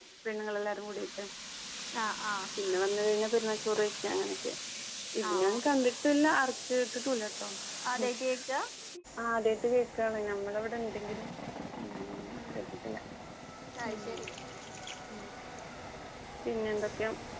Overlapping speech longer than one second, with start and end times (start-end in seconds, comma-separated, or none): none